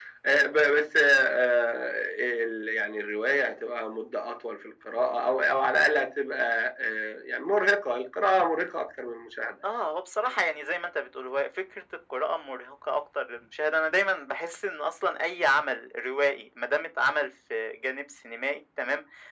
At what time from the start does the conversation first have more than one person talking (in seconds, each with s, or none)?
none